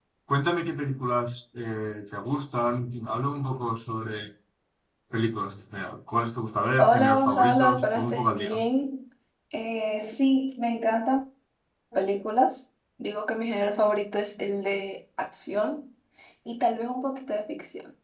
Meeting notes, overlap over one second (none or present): present